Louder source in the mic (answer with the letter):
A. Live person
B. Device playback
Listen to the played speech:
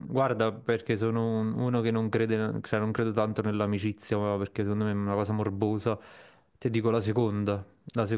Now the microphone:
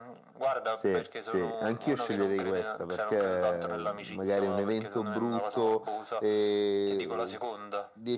A